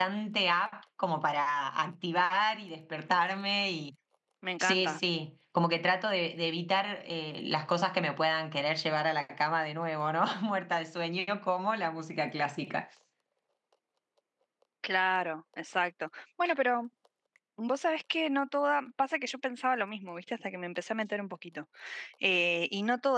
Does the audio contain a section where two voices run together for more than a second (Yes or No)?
No